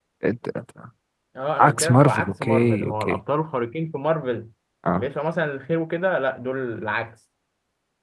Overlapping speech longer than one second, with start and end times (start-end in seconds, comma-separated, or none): 1.6-3.2